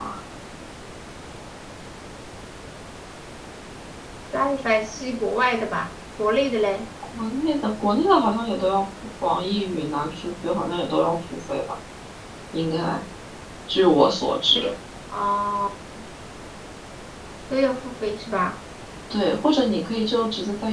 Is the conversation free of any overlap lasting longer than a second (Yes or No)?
Yes